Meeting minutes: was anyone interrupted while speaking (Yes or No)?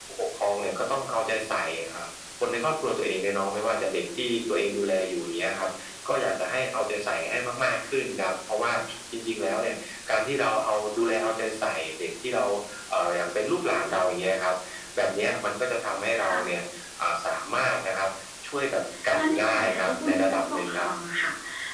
Yes